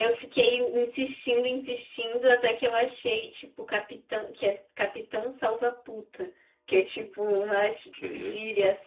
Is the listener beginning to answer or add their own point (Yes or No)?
No